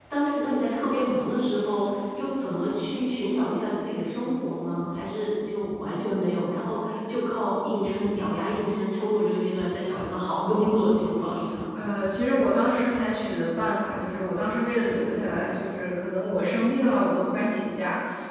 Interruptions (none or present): none